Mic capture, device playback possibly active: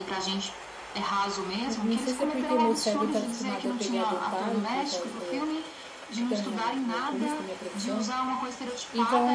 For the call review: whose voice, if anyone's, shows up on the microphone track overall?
both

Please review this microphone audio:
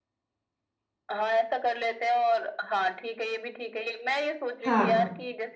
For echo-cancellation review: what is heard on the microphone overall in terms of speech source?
both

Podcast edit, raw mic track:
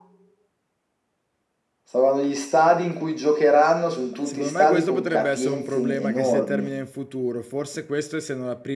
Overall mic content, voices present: both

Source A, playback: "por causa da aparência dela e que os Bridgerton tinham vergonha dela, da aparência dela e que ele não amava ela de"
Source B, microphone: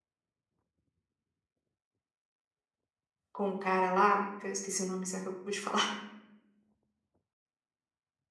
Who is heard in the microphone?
user only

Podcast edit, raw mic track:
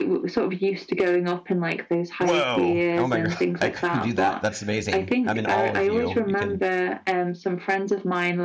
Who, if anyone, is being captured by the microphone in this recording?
both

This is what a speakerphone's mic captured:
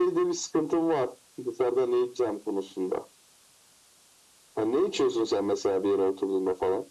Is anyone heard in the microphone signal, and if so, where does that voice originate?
echo only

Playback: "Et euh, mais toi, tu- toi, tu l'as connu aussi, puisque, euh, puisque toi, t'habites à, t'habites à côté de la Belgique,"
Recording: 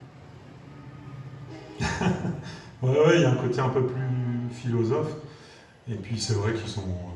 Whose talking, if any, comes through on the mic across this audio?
user only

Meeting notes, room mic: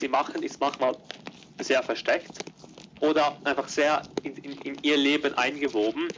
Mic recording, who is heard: echo only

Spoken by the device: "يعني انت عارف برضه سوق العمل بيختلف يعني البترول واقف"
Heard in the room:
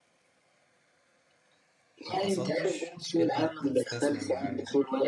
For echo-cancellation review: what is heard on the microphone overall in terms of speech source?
both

